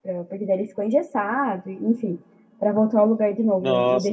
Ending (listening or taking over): taking over